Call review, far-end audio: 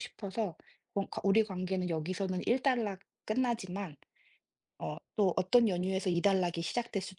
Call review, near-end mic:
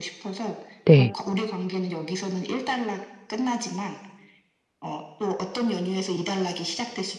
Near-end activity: present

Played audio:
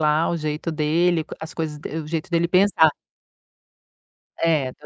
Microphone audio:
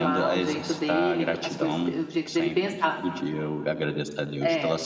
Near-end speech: present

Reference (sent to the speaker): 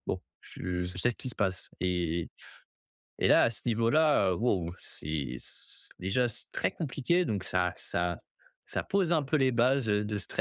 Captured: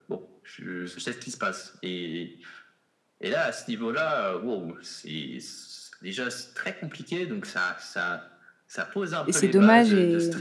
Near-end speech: present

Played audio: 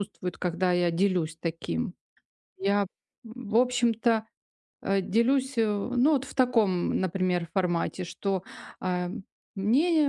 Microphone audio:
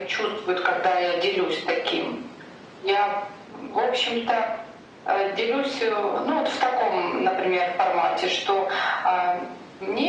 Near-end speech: none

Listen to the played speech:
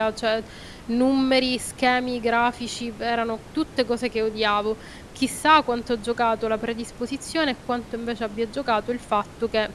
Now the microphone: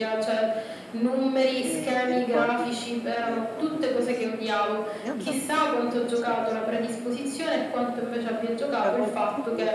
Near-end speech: present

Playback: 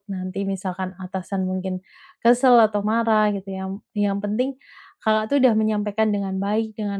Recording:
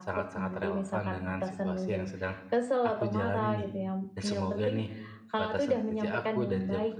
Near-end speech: present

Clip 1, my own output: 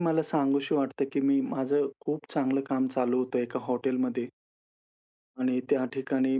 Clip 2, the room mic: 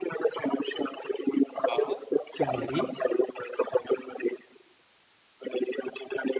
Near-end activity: present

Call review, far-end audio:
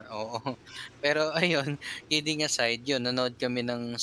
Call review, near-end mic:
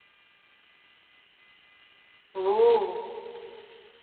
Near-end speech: present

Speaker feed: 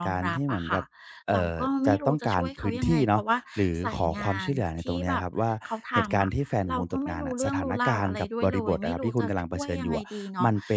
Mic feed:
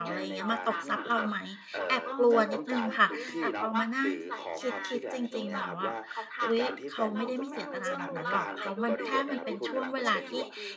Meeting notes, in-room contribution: present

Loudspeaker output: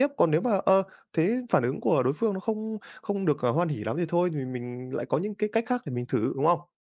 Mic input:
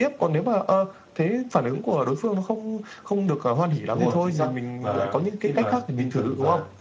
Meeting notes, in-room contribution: present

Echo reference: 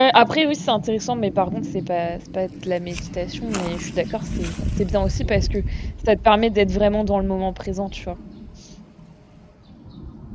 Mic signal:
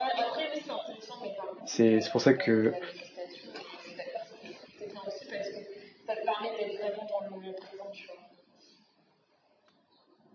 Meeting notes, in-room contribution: present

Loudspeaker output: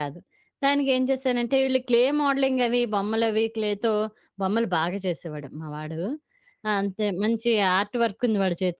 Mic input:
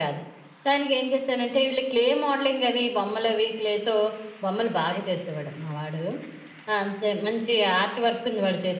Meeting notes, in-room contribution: none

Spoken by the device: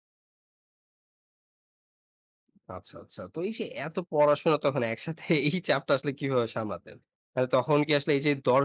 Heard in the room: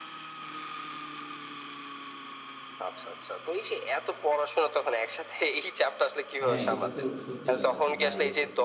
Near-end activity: present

